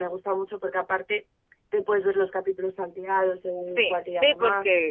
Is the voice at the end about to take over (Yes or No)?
Yes